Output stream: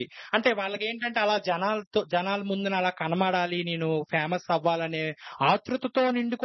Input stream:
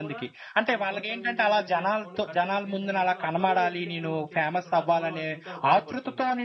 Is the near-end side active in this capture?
Yes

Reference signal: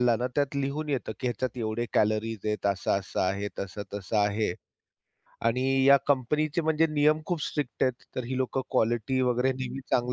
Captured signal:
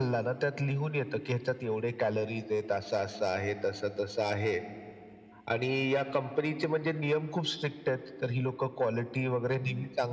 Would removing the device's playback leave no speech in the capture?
Yes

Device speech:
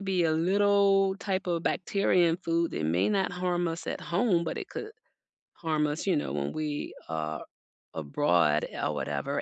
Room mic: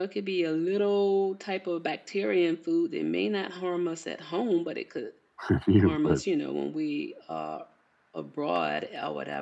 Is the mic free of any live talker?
No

